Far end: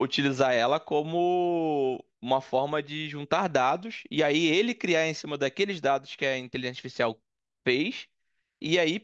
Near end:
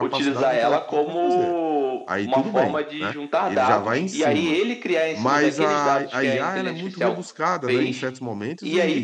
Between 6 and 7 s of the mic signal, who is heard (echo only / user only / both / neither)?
both